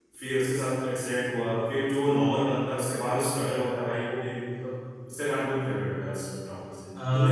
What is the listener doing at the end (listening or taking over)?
taking over